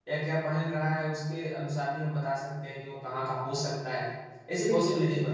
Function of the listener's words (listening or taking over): listening